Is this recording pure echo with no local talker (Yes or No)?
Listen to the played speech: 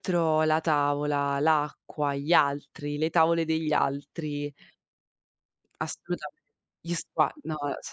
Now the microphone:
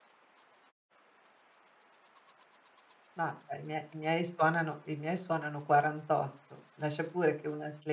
No